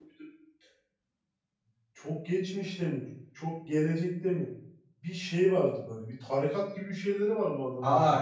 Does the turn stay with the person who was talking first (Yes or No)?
No